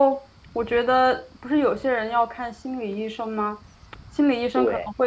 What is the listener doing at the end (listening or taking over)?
listening